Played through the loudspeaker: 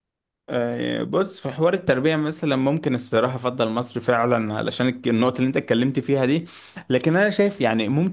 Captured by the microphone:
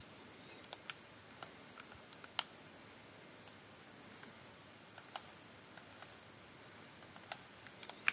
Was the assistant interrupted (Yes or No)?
No